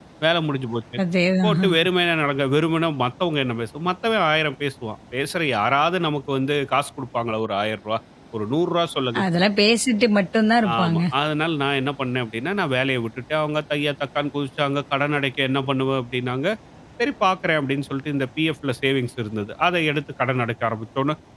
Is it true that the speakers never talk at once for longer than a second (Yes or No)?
Yes